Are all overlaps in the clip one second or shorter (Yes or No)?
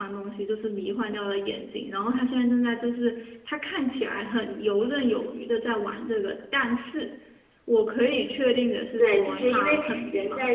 No